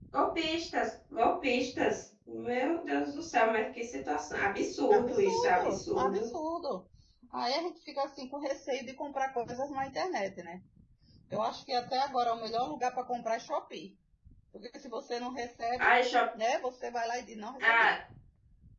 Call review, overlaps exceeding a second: present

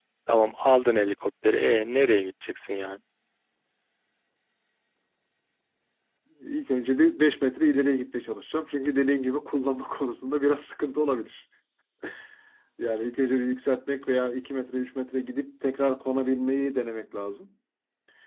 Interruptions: none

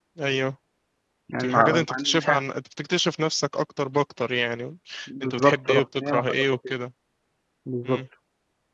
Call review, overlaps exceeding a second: present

